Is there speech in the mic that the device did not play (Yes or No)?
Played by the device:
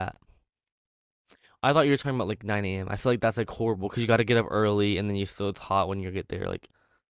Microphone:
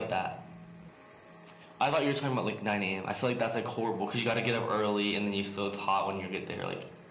No